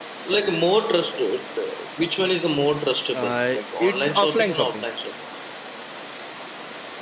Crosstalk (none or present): present